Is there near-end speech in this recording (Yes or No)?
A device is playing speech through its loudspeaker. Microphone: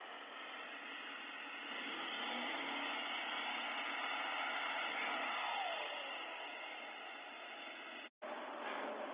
No